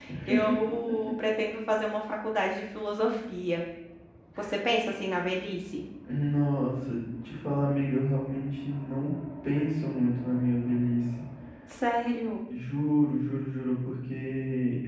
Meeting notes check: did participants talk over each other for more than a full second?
No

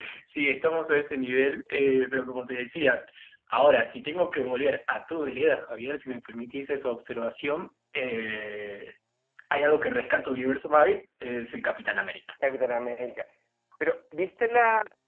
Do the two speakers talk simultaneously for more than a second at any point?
No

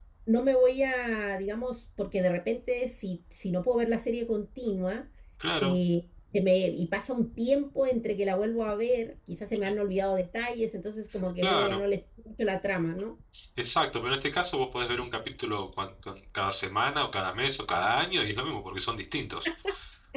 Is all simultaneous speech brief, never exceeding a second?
Yes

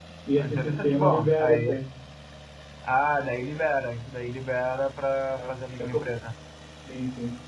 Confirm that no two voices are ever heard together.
No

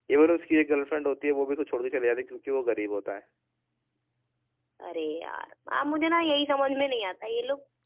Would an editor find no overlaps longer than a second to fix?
Yes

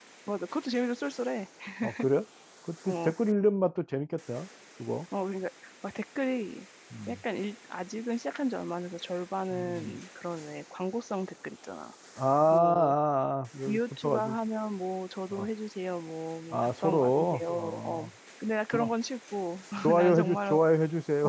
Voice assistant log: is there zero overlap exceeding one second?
No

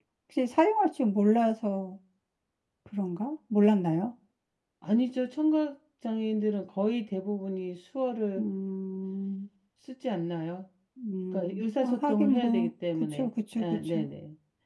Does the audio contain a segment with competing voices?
Yes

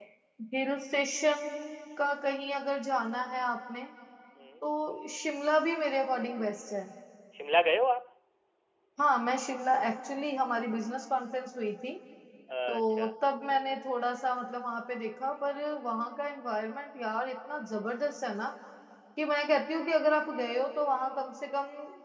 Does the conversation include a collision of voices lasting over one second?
No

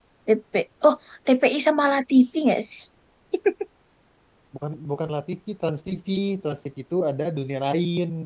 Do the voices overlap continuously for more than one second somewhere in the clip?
No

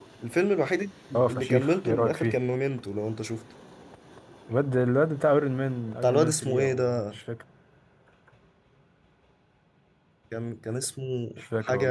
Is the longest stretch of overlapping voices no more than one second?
No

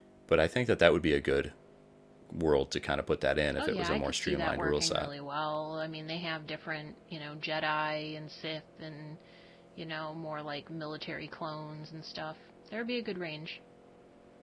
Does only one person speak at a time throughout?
No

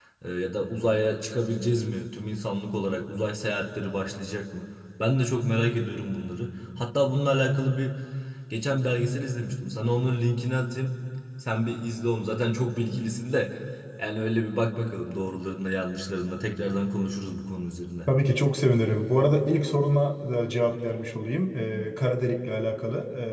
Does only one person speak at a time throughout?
Yes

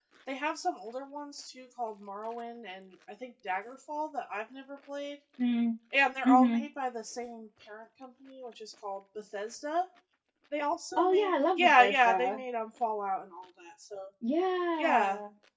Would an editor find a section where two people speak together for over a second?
Yes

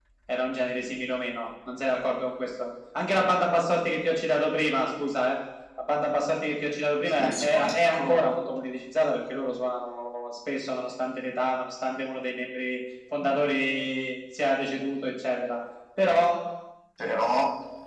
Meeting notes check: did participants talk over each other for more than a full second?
Yes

